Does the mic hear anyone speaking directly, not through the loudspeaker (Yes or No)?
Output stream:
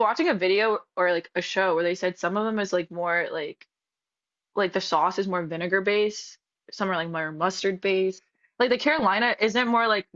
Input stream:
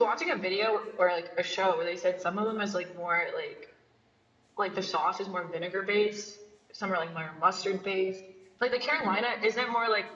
No